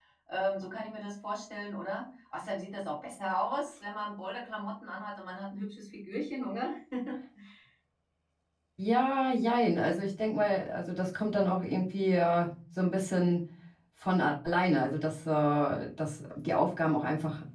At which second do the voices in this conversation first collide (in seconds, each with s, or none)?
none